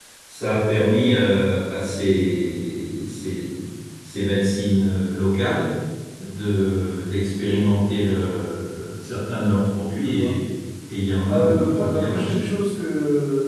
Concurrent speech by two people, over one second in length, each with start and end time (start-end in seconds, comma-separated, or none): 11.3-12.5